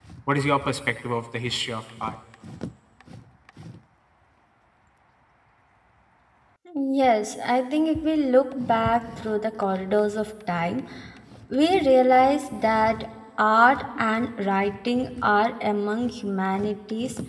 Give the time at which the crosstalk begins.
none

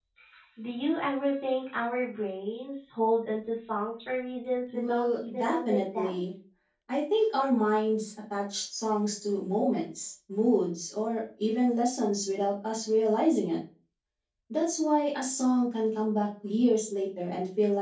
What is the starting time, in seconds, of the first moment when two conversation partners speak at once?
5 s

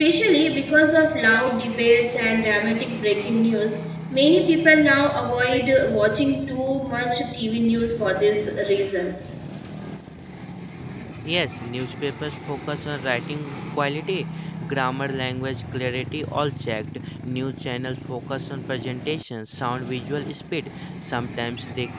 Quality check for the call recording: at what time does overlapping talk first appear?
none

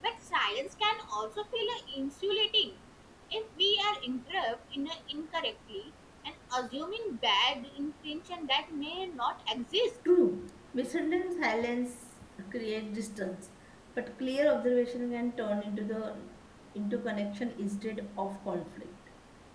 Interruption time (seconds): none

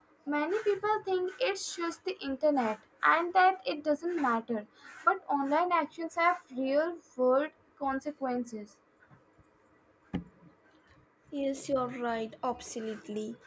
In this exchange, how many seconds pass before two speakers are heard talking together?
none

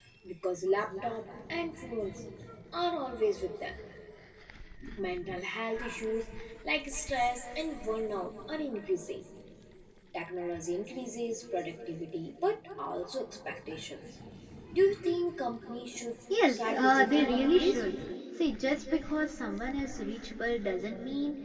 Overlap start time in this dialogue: 16 s

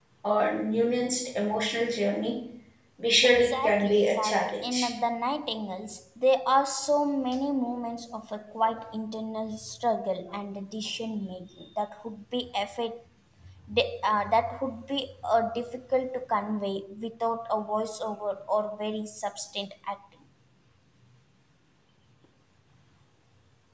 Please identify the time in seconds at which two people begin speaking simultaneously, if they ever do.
3 s

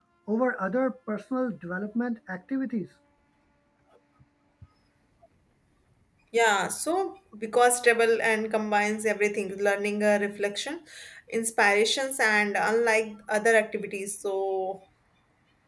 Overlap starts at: none

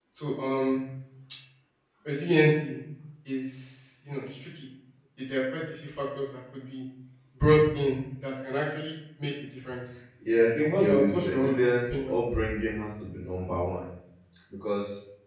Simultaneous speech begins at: 11 s

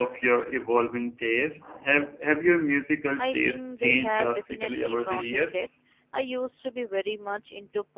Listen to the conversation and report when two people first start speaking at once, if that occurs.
3 s

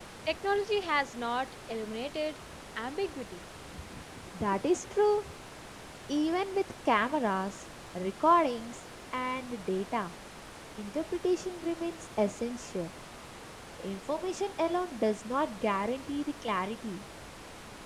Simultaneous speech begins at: none

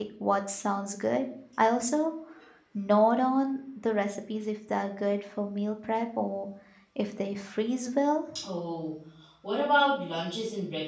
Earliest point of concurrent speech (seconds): none

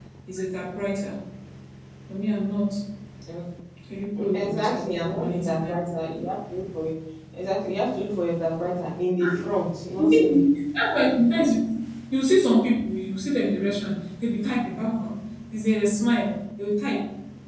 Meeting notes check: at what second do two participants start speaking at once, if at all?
4 s

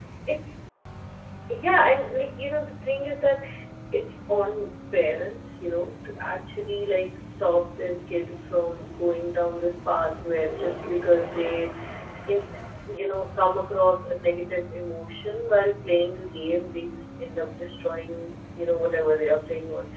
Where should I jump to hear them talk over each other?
none

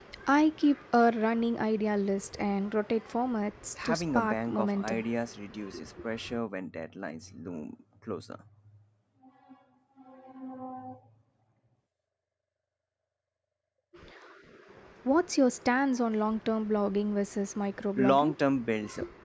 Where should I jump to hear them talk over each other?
4 s

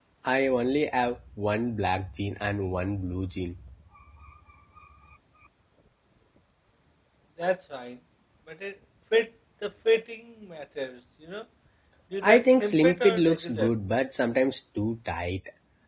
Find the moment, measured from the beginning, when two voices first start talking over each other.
12 s

